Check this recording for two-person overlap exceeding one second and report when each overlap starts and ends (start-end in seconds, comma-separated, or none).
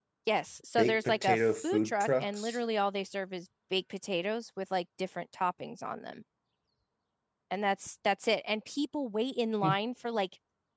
0.8-2.6